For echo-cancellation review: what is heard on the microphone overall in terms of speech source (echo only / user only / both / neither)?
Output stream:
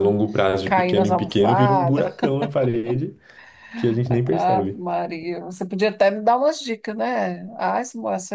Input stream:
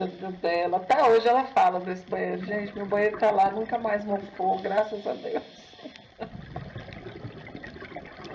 user only